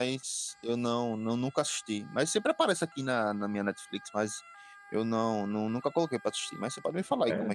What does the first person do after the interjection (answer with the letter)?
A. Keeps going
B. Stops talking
B